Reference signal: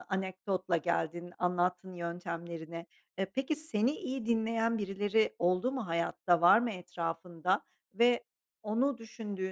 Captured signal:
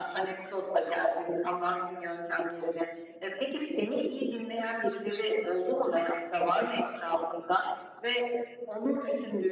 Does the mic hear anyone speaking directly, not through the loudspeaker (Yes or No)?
No